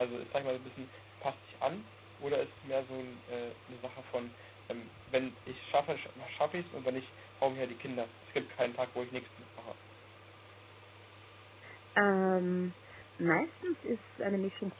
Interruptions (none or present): none